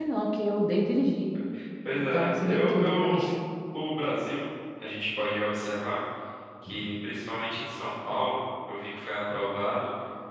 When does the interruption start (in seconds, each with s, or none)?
1.9 s